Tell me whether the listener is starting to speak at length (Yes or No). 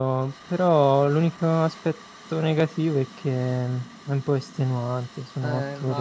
Yes